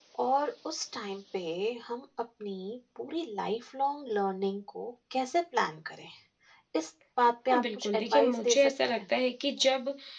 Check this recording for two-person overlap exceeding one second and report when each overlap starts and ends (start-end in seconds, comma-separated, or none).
7.5-9.0